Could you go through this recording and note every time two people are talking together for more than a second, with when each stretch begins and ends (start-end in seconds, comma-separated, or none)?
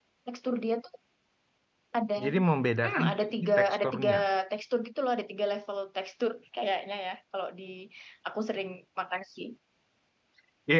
2.8-4.1